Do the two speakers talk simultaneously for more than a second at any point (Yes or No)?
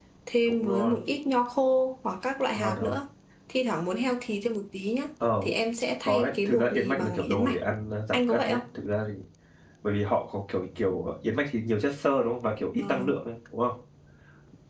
Yes